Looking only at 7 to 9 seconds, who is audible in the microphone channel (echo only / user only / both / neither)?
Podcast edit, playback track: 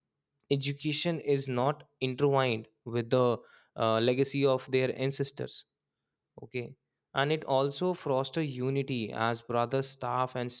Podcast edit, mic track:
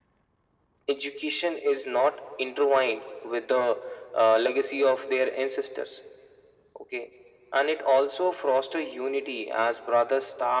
echo only